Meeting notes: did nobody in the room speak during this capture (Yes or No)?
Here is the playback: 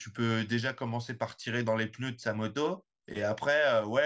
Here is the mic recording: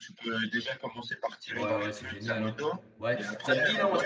No